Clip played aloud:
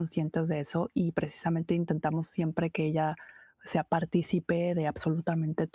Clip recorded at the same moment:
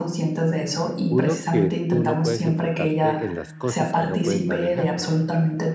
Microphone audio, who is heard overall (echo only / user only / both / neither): both